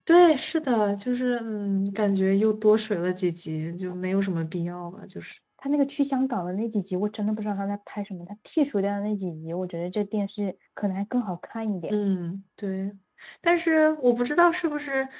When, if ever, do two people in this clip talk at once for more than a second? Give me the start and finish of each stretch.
none

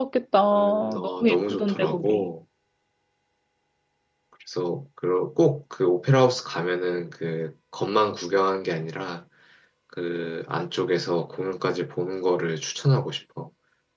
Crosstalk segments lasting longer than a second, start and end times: 0.6-2.3

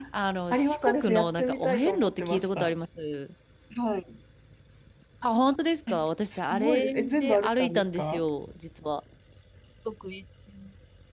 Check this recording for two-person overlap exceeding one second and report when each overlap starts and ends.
0.5-2.7, 6.3-8.2

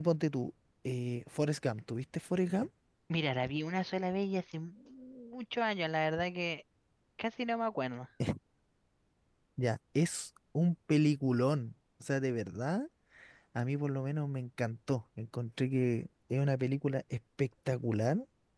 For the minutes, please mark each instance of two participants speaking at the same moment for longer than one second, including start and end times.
none

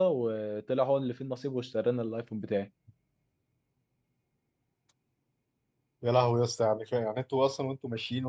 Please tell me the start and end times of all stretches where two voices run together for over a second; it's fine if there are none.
none

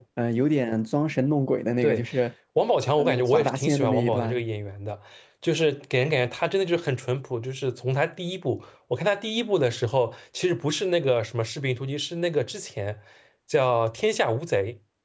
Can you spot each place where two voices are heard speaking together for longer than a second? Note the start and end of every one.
3.0-4.4

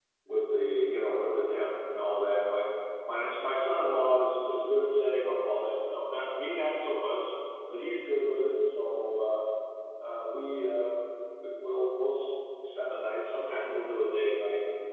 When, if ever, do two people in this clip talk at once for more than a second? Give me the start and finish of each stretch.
none

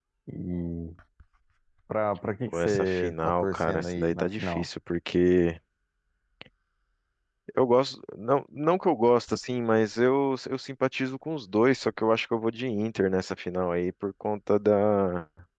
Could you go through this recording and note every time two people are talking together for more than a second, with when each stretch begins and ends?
2.5-4.7

